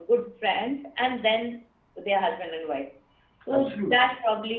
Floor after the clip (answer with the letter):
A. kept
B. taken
A